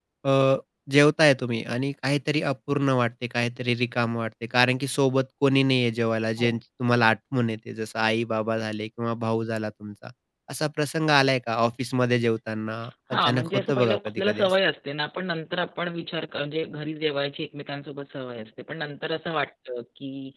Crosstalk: present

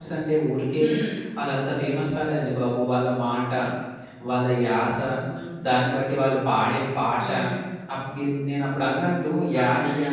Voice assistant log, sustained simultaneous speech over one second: none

